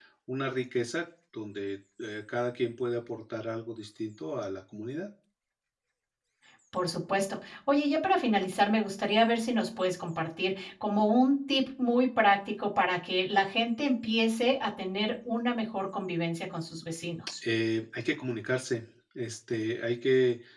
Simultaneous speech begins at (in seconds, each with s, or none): none